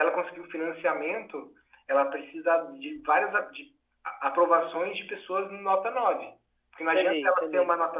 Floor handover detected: No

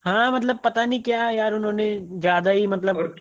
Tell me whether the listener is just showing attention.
No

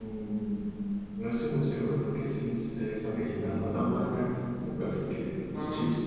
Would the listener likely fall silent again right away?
Yes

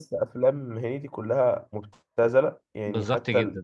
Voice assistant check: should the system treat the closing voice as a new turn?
No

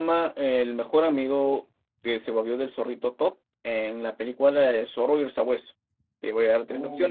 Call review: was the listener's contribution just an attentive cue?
Yes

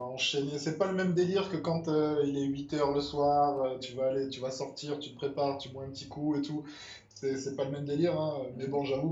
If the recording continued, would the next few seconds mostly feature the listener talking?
No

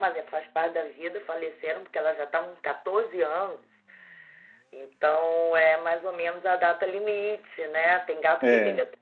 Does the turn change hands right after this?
No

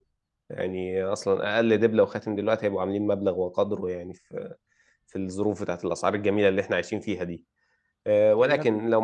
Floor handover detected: No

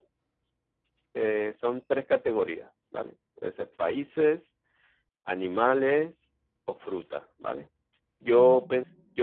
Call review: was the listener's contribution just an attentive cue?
Yes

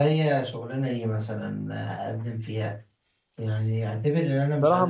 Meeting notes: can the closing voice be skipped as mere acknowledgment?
No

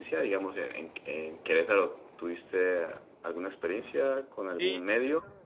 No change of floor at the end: No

